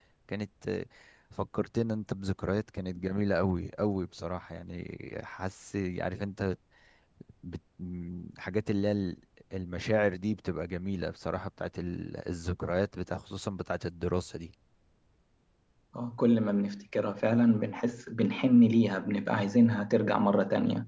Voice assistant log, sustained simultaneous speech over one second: none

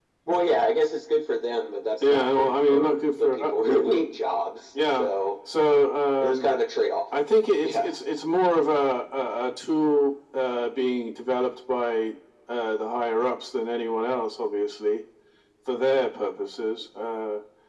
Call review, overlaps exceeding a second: present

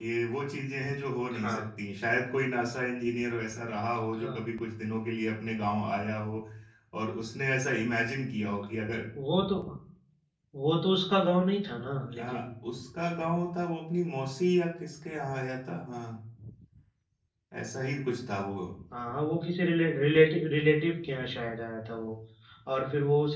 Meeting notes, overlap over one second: none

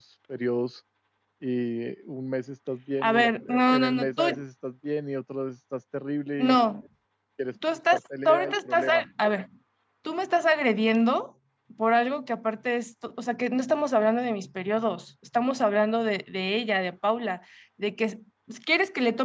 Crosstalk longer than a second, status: present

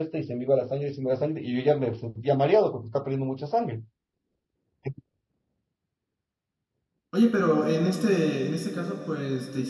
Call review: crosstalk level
none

